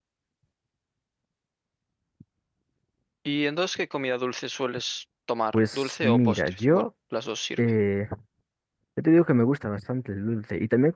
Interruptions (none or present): present